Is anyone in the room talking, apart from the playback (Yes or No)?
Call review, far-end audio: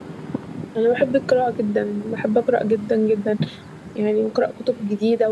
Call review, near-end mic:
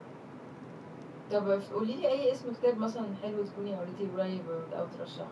Yes